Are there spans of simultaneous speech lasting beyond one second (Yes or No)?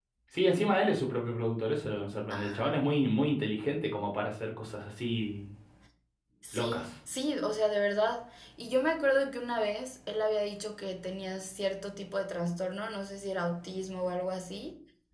No